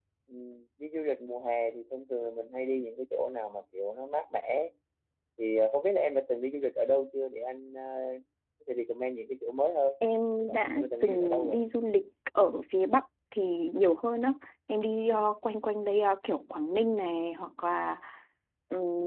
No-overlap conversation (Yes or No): No